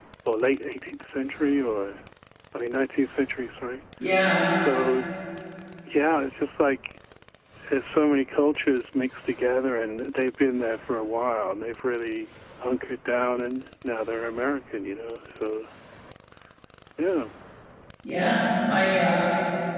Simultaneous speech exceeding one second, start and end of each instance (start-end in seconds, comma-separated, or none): none